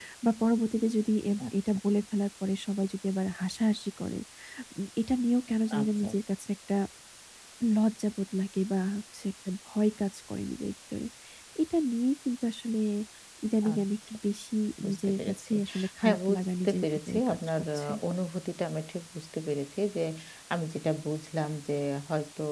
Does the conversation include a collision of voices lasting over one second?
Yes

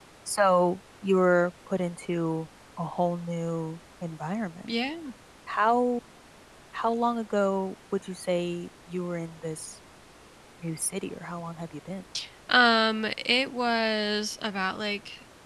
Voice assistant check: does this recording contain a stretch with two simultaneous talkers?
No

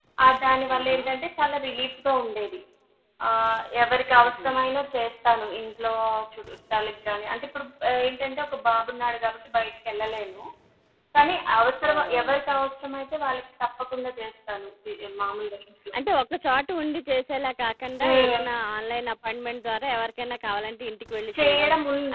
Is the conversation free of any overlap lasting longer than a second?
Yes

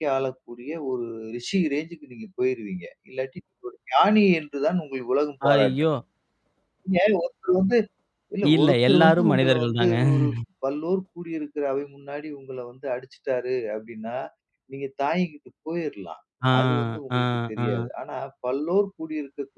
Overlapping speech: Yes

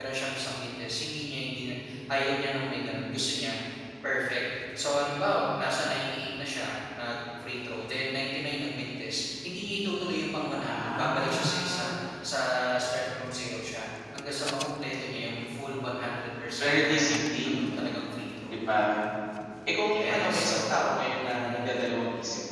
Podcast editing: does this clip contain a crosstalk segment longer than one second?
Yes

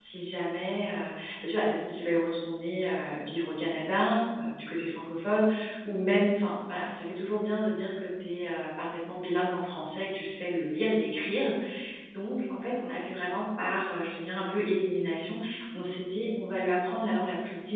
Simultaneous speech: No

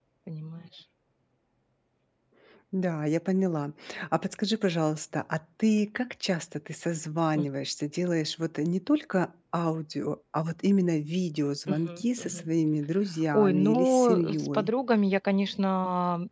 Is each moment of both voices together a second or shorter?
No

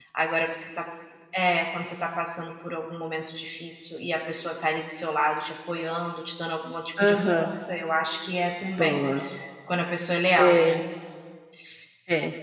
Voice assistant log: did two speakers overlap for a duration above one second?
No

